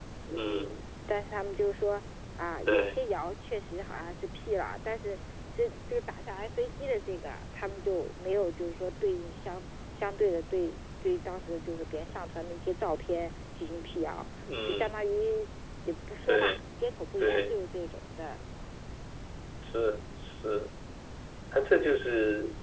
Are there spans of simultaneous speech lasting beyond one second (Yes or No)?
No